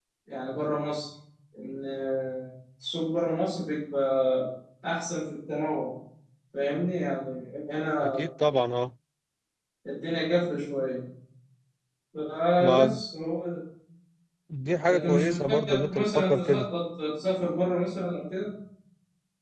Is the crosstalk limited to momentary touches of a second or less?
No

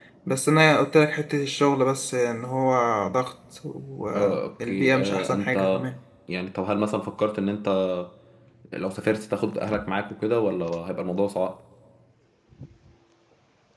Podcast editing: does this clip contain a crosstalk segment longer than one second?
Yes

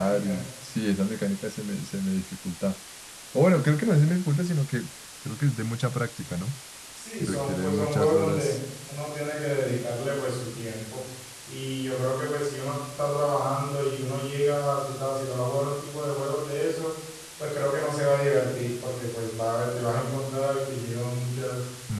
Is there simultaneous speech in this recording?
Yes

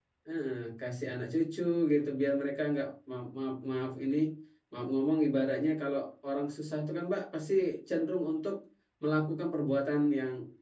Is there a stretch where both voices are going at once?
No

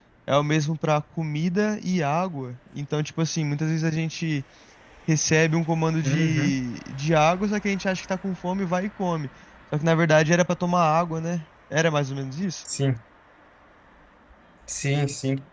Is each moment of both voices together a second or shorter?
Yes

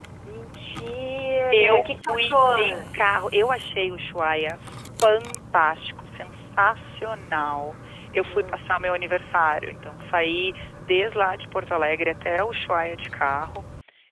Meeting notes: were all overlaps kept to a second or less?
No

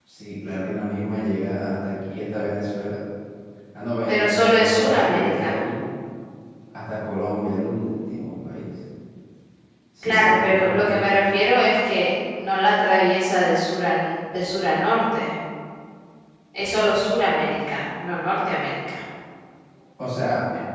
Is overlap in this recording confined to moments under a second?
No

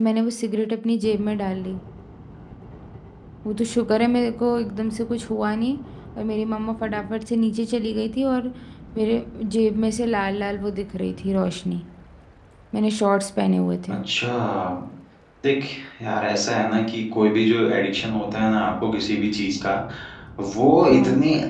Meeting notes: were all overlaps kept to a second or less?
Yes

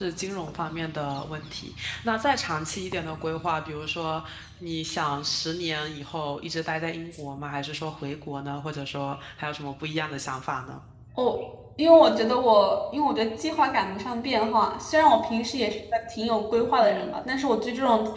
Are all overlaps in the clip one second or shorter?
Yes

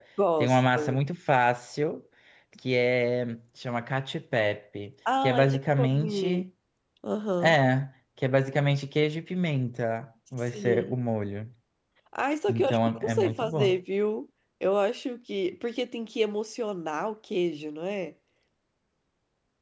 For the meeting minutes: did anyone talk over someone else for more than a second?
Yes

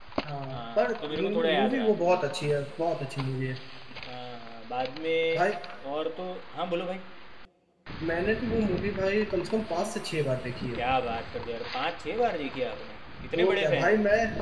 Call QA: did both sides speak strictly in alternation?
No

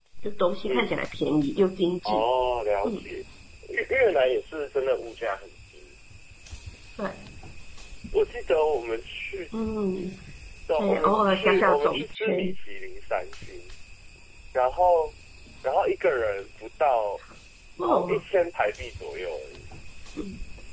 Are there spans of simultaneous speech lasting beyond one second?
Yes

